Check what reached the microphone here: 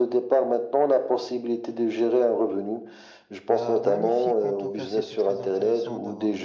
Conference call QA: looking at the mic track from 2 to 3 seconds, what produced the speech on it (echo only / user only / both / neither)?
echo only